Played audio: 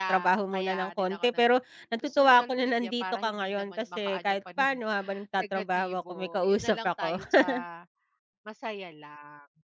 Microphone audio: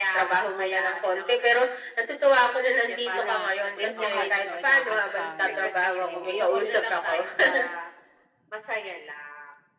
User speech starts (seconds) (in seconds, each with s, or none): 3.1 s